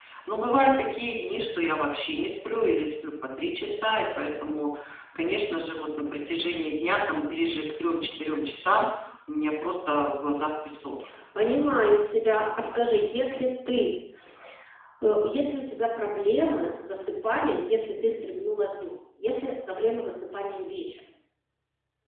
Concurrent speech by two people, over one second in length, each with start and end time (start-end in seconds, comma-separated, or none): none